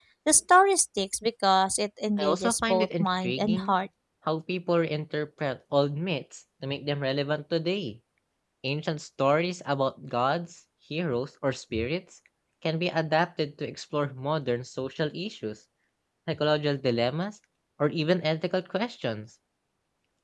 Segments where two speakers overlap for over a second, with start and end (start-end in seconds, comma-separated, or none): 2.2-3.8